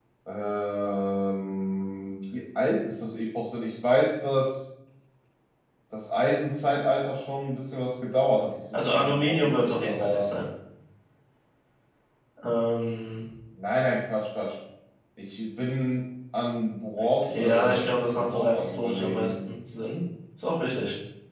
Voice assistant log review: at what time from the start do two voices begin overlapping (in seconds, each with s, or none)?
8.7 s